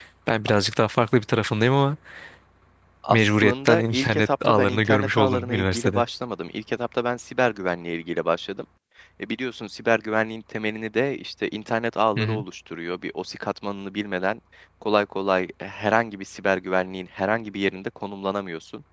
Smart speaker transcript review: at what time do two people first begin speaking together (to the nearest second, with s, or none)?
3 s